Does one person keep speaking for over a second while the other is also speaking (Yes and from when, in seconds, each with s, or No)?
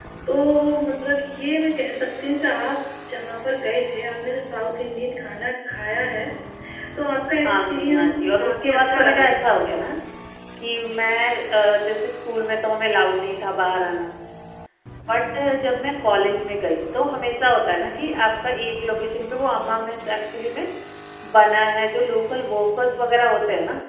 Yes, from 7.4 s